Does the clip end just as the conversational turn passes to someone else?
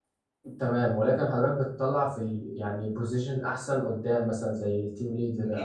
Yes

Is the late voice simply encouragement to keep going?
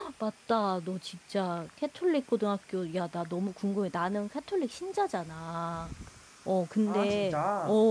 Yes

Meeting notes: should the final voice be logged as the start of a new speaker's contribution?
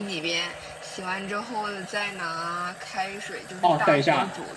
Yes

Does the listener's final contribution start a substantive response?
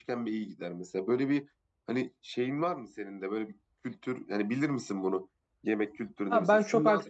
Yes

